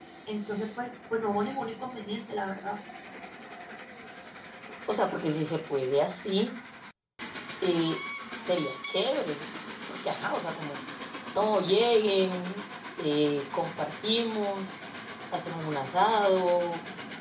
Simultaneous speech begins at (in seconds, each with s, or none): none